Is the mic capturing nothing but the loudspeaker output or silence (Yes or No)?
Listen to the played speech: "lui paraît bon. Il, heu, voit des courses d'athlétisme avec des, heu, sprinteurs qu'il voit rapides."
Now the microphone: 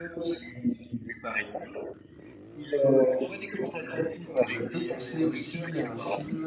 No